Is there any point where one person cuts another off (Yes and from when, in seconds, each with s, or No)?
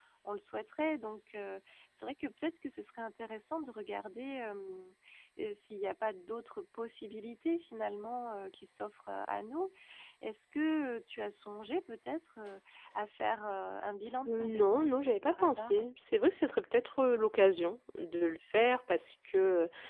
Yes, from 14.2 s